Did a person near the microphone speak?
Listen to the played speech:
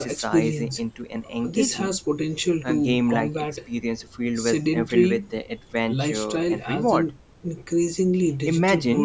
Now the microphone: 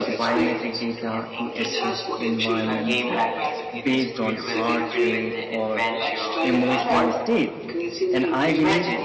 Yes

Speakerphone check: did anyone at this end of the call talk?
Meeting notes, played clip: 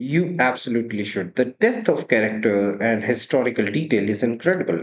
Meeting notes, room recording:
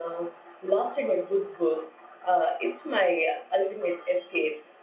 Yes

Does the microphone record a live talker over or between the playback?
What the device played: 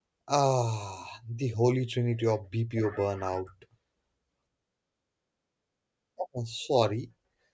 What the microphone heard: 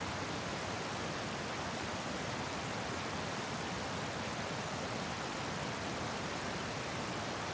No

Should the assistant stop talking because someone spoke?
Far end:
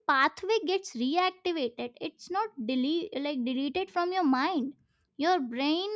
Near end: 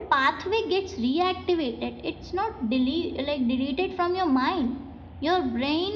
No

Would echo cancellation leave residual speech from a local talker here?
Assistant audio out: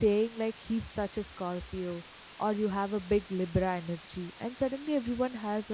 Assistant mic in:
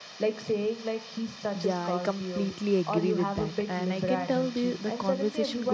Yes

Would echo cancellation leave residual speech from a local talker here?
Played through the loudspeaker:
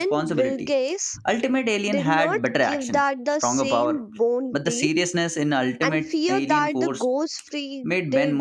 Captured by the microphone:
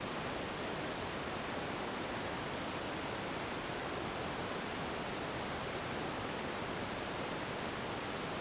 No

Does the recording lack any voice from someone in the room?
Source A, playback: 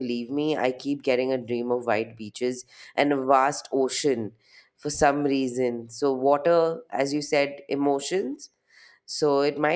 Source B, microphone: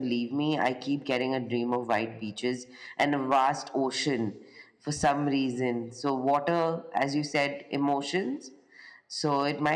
Yes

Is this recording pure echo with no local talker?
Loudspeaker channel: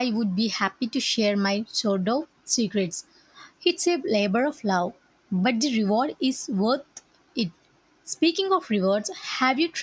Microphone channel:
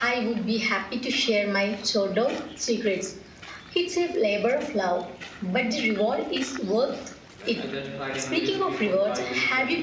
No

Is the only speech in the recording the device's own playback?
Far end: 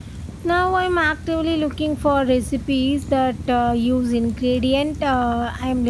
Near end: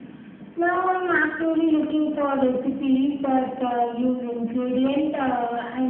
Yes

